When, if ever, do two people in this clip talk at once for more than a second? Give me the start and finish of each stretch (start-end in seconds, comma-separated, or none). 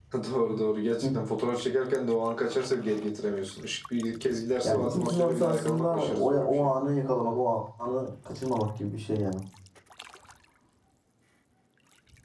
4.6-6.7